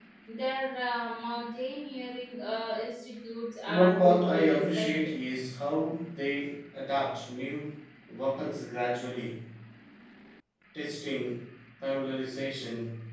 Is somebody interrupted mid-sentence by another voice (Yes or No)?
Yes